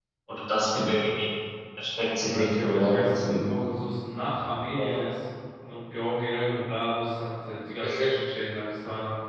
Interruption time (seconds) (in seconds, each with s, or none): 2.2 s